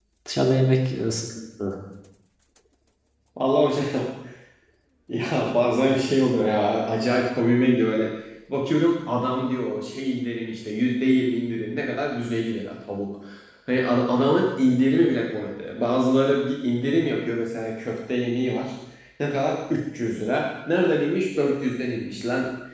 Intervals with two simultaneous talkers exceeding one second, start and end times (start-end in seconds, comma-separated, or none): none